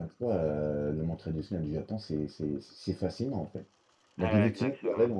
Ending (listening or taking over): listening